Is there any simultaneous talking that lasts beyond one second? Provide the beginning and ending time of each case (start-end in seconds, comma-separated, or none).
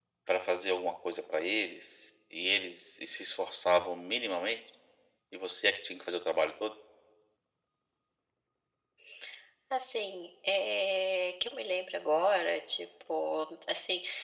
none